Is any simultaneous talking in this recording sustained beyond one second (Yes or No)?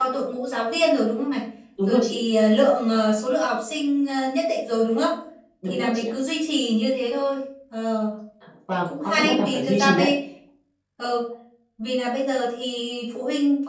Yes